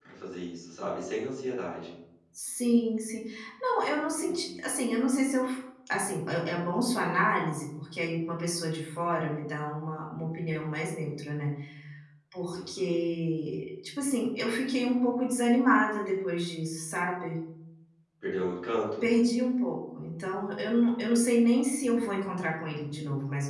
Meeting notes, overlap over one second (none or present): none